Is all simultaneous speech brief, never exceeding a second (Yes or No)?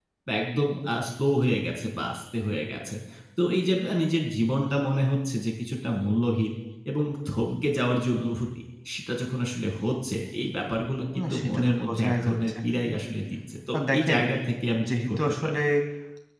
No